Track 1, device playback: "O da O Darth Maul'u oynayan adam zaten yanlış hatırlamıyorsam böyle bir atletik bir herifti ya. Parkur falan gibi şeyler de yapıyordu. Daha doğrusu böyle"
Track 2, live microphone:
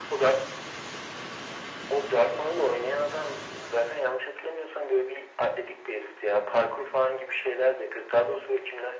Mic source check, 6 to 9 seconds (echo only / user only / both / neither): echo only